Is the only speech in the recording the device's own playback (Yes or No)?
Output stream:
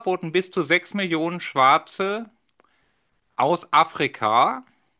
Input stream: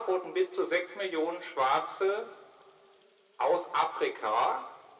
Yes